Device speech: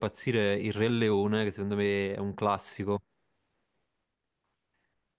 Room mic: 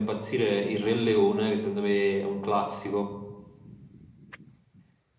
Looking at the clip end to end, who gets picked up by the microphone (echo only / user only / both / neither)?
echo only